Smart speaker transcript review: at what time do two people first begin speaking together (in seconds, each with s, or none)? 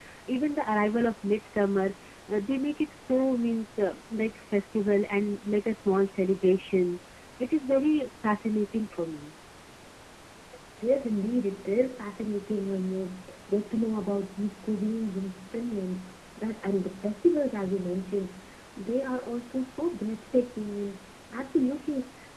none